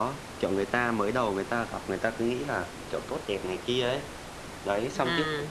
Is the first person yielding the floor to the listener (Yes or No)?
No